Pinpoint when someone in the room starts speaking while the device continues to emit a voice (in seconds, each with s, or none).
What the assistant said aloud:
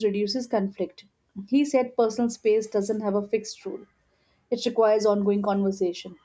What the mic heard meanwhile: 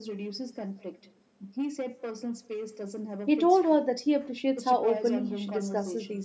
3.2 s